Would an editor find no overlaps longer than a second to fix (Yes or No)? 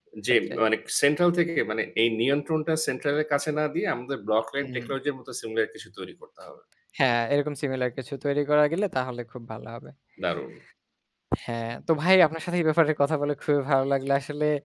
Yes